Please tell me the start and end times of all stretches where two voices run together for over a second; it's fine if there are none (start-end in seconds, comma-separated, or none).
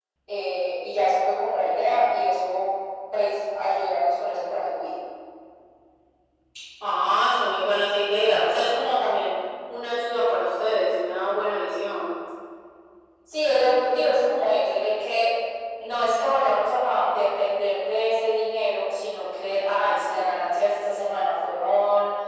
none